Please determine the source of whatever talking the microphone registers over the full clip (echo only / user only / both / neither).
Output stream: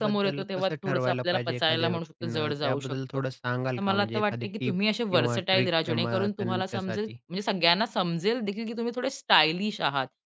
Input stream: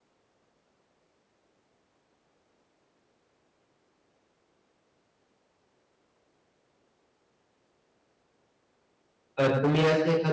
user only